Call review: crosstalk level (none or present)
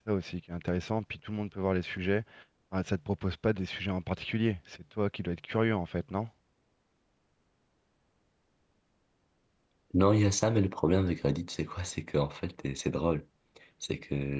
none